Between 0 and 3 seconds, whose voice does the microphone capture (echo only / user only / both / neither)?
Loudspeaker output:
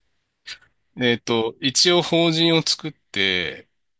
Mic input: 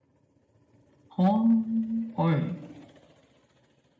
user only